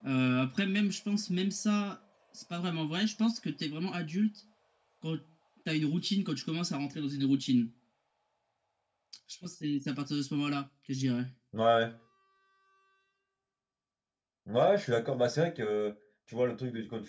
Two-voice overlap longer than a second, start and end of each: none

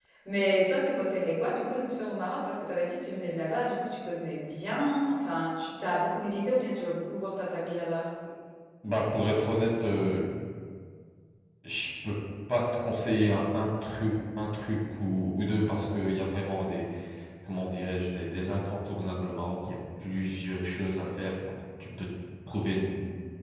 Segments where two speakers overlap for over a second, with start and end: none

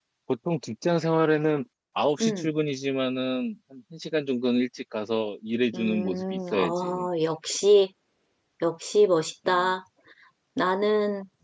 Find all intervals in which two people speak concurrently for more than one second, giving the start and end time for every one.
5.7-7.1

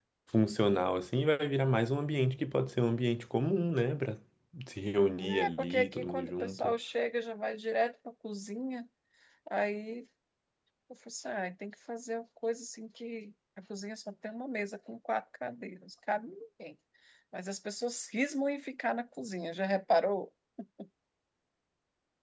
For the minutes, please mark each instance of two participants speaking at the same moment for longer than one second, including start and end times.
5.3-6.7

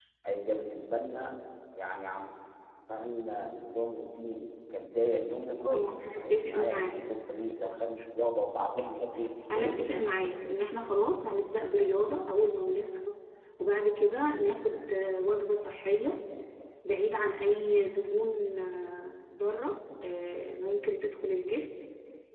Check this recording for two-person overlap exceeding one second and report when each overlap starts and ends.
5.6-7.0

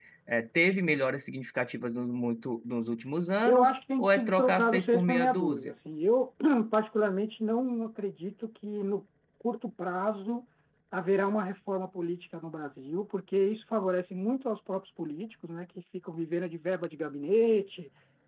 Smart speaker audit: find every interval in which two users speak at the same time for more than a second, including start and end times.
3.4-5.7

